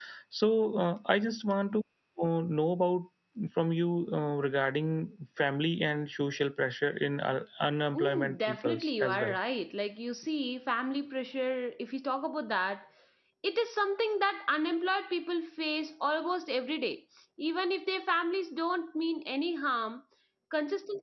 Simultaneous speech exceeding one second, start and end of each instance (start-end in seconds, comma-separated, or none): 8.0-9.4